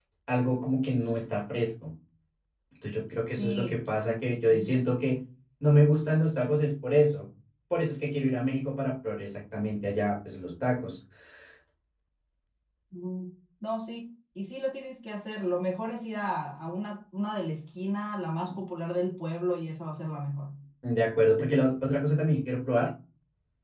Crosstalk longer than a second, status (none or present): none